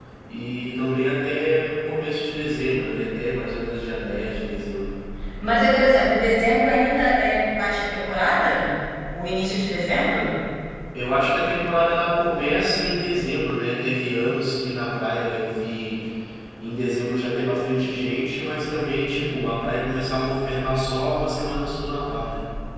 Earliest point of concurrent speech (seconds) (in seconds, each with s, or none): none